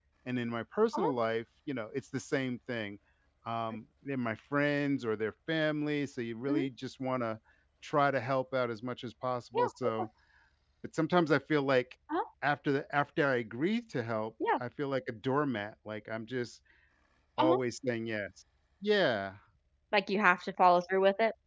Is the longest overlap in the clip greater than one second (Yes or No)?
No